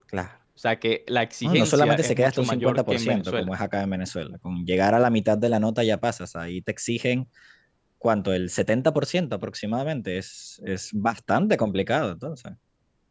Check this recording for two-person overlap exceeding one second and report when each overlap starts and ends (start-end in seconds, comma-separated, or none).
1.4-3.5